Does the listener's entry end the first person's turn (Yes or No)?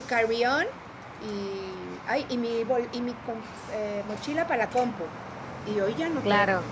Yes